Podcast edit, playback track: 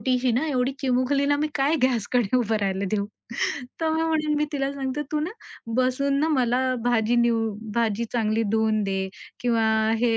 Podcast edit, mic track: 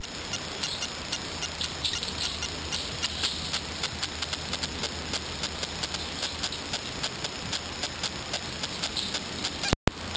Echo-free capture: Yes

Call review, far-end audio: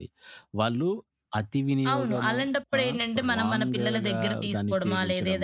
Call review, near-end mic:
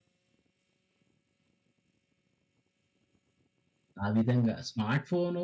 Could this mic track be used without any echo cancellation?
Yes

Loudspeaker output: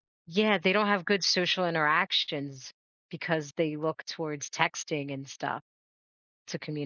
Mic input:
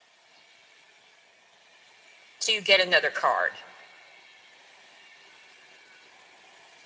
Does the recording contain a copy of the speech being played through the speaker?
No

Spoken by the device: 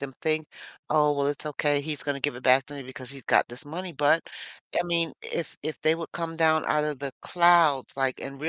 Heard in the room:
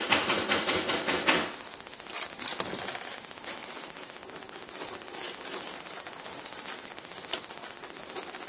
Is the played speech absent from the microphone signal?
Yes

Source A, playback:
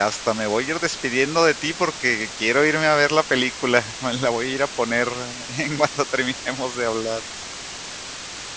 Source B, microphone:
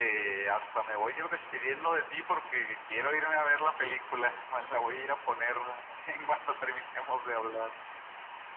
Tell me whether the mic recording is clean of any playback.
No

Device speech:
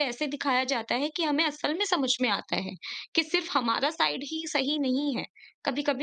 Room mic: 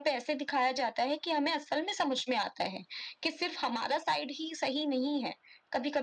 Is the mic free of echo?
No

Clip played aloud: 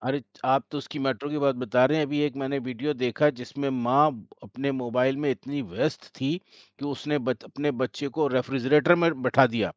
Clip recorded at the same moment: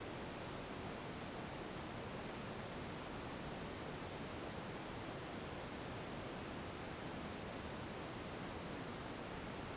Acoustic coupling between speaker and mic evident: No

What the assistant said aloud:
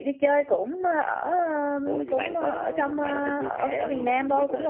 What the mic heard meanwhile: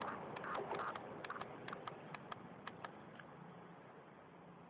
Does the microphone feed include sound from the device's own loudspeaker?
No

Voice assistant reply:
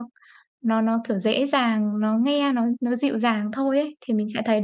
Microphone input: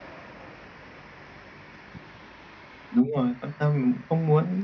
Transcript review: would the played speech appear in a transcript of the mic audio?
No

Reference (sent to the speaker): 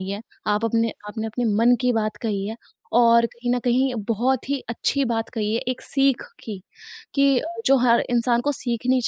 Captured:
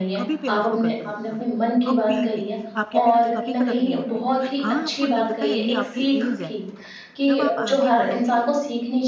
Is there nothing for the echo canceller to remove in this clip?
No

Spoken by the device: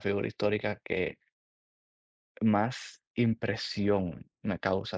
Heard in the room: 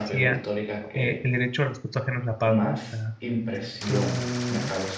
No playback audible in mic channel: No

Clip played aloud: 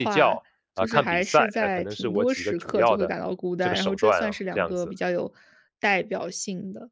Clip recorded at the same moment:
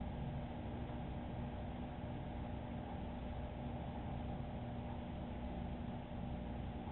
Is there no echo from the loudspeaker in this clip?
Yes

